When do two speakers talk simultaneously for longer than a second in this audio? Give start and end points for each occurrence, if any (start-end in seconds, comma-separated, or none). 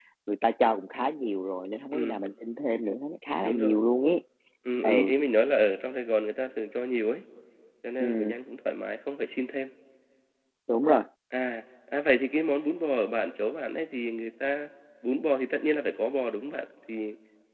none